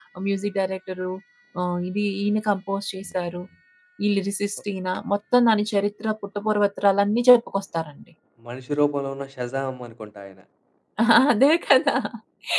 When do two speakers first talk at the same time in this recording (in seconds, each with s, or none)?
none